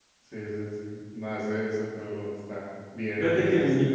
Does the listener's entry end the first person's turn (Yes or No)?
Yes